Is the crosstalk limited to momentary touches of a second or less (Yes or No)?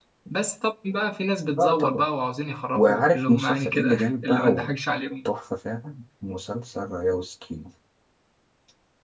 No